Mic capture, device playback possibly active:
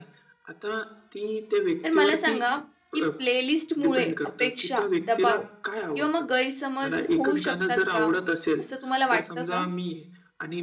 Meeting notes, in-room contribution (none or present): present